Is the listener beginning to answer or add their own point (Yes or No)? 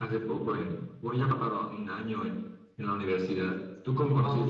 Yes